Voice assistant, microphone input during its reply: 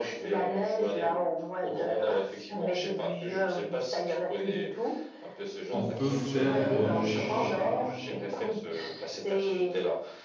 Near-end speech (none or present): present